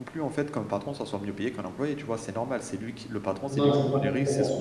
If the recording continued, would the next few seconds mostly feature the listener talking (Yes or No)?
Yes